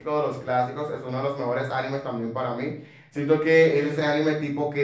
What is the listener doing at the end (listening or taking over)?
listening